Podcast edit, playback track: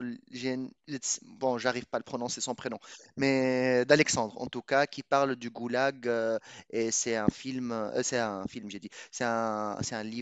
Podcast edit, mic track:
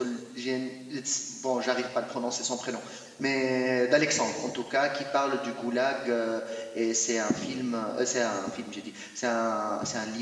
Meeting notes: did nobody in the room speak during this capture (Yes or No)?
Yes